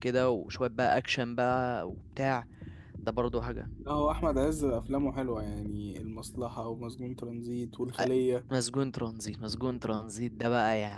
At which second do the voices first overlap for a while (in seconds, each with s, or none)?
none